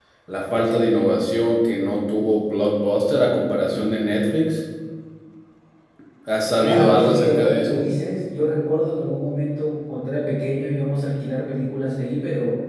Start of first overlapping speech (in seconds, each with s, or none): 6.6 s